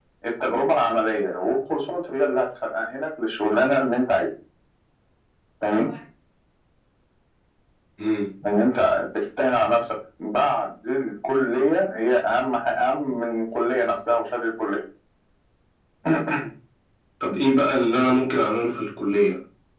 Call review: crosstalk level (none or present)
none